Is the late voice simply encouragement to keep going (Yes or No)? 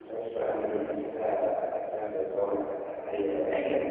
No